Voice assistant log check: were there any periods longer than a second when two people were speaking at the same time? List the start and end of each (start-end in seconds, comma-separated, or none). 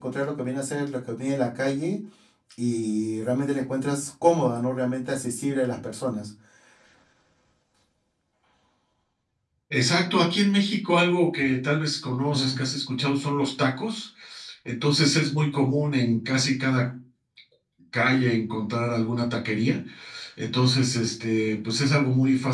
none